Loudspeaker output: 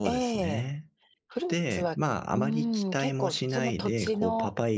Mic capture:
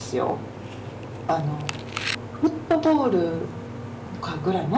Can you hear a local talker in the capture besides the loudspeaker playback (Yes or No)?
Yes